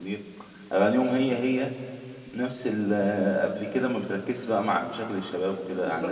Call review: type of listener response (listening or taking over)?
taking over